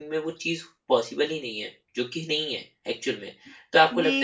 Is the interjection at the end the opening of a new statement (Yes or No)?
No